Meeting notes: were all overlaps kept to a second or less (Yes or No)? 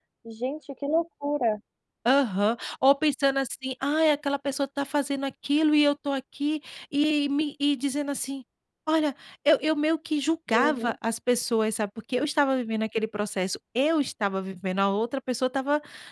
Yes